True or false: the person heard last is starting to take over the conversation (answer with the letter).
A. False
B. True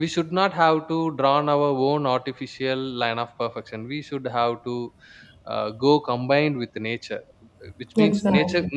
A